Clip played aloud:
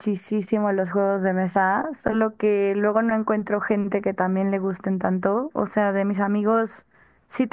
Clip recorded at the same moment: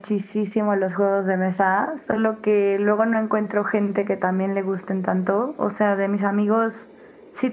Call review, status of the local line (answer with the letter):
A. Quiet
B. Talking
A